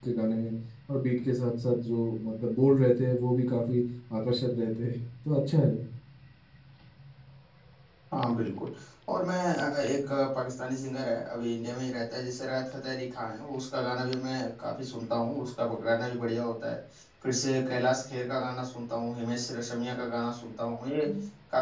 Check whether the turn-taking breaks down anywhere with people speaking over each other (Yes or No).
No